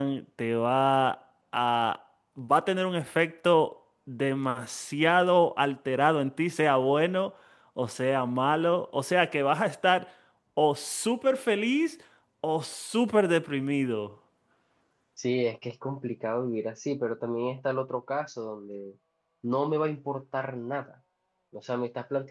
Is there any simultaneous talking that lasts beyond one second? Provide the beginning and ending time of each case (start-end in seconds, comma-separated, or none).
none